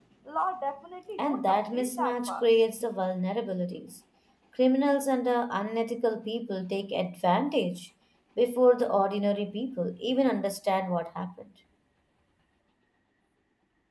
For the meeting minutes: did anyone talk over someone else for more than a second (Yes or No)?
Yes